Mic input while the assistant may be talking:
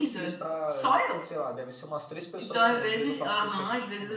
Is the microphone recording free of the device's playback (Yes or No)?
No